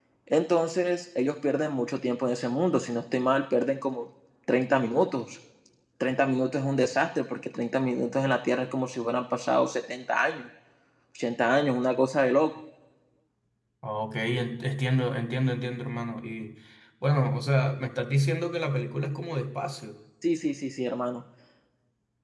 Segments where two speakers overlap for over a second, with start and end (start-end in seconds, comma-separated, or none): none